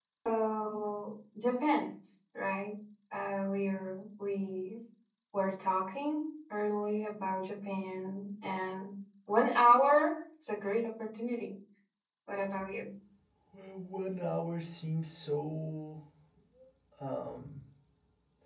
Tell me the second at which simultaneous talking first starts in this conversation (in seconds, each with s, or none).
none